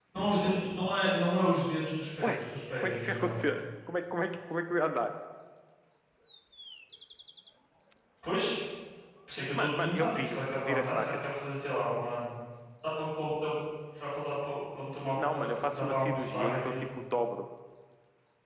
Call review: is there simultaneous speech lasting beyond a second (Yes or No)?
Yes